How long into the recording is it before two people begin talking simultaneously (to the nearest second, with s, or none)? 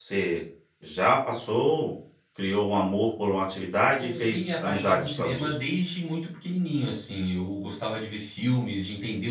4 s